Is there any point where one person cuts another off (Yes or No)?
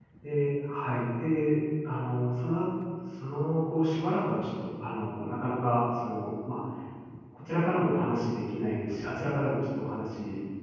No